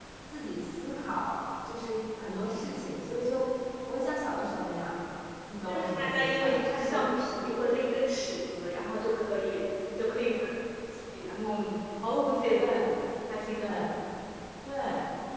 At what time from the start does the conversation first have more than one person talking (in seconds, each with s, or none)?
5.7 s